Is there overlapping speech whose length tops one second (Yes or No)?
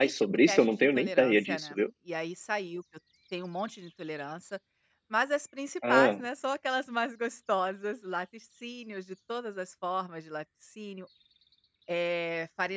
Yes